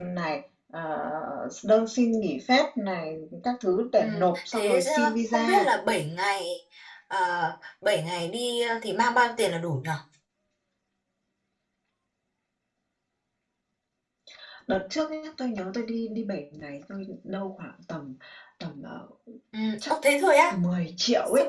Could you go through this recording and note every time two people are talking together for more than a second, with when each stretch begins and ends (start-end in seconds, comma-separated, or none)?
4.0-5.7